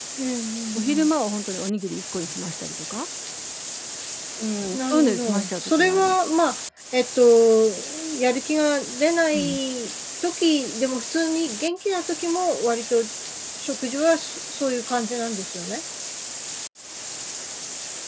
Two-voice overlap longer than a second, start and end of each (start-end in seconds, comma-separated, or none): 4.7-6.1